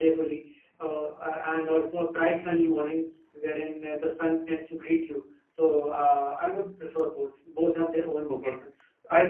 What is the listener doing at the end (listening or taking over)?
taking over